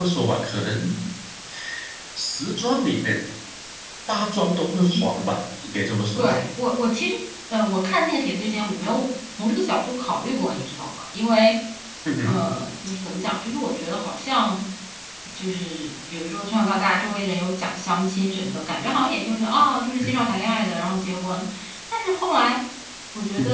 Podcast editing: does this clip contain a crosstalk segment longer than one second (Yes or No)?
No